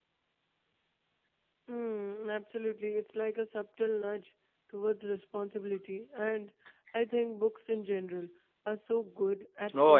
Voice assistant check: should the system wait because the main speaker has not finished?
No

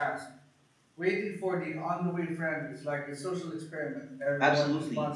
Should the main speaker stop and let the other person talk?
Yes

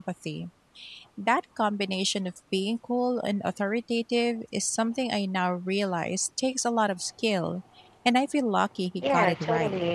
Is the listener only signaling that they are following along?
No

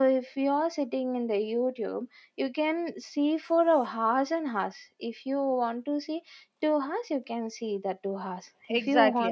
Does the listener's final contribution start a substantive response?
Yes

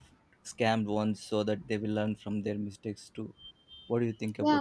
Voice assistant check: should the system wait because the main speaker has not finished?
No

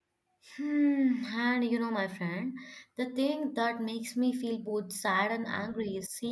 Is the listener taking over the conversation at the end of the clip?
No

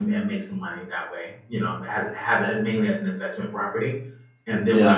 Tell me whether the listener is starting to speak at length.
No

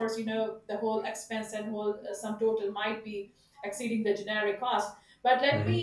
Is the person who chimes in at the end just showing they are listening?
Yes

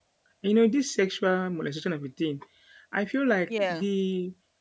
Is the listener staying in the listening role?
Yes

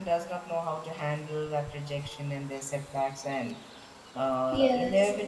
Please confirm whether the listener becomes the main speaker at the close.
No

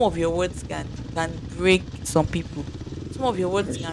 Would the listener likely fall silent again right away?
Yes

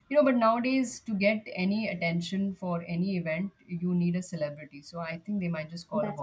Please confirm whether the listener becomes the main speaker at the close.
Yes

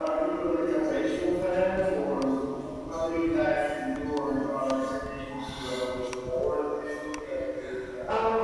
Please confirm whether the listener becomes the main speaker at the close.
Yes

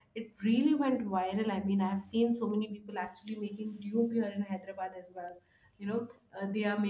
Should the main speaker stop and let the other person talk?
No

